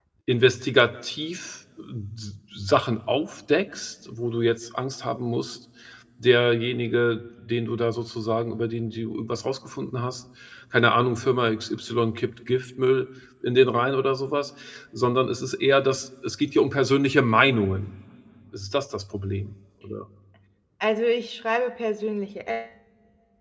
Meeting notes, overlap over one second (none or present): none